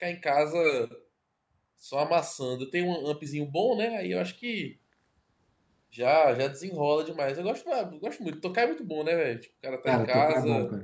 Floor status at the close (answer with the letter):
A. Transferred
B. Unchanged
A